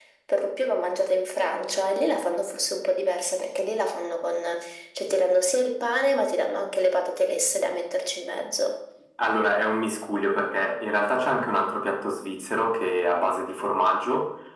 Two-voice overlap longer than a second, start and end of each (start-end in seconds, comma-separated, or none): none